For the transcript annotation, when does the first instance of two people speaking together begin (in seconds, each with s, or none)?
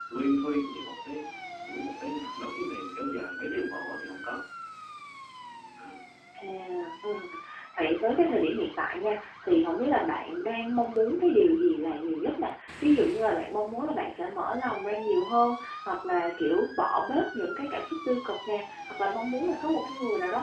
none